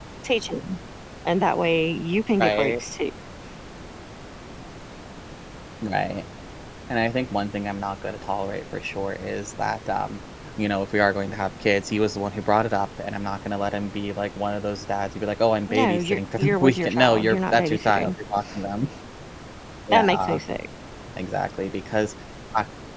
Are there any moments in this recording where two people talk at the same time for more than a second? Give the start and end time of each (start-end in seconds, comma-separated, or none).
15.7-18.1